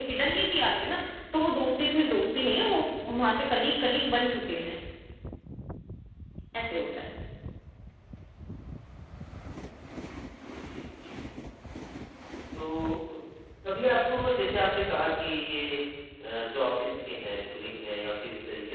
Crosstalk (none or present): none